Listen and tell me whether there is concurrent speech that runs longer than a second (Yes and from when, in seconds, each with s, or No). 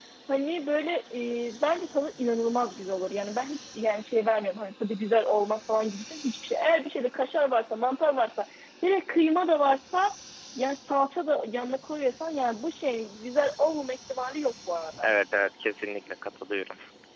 No